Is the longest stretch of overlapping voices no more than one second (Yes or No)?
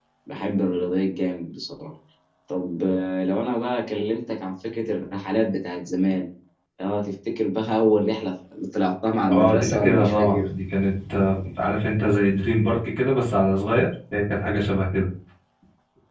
No